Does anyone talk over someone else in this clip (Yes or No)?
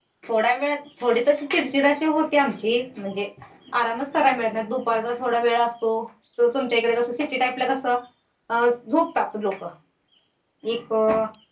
No